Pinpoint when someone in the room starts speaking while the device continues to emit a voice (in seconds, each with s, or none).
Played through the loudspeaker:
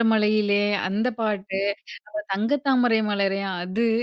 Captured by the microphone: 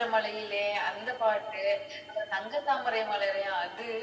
none